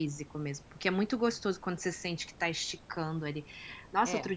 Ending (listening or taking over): listening